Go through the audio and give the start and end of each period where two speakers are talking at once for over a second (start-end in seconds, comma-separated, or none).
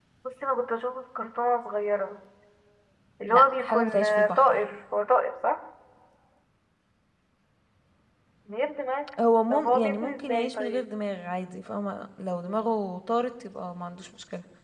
3.3-4.6, 9.5-10.8